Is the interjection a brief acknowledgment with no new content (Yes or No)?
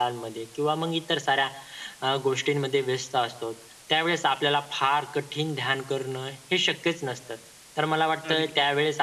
Yes